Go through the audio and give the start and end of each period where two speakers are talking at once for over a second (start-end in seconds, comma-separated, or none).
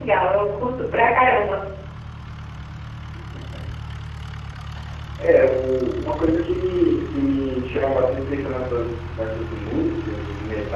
none